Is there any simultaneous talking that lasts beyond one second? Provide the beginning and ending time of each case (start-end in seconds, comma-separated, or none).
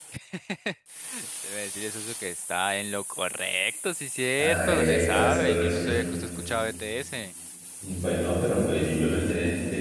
4.4-6.0